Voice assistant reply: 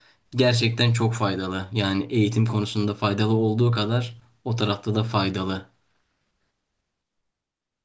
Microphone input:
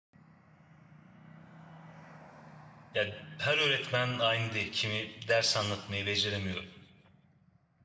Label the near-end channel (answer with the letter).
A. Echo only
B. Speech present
B